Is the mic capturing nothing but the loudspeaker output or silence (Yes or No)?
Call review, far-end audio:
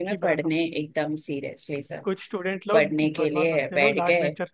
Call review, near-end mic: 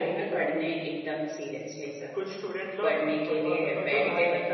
No